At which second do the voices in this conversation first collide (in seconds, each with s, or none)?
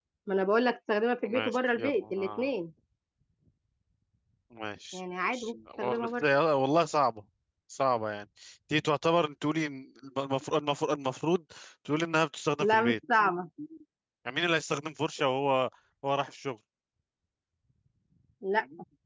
1.2 s